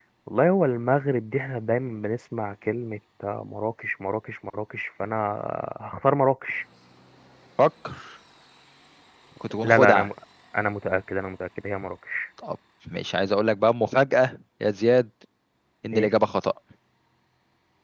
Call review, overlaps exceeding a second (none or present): none